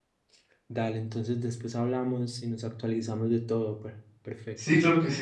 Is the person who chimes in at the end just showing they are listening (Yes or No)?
No